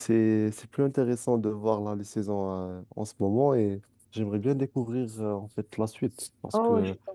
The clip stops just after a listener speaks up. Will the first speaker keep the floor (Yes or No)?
No